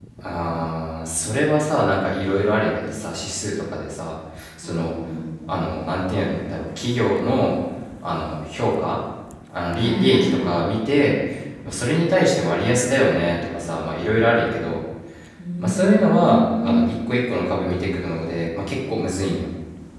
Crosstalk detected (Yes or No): Yes